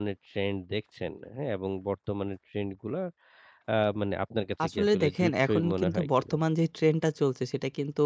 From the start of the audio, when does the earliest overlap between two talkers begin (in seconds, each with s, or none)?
4.6 s